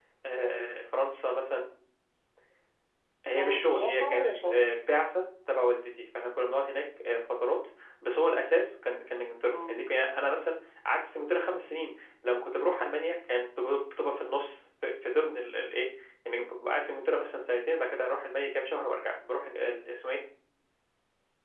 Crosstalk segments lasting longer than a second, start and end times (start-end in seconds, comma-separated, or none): 3.4-4.7